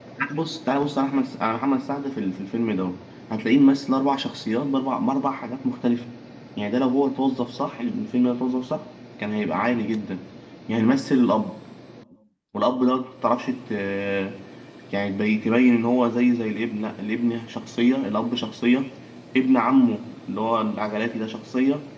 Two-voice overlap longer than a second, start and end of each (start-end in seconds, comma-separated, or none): none